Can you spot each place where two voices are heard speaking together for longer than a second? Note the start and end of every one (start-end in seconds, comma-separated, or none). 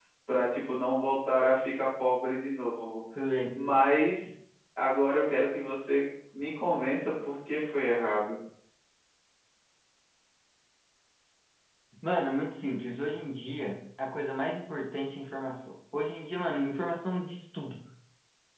none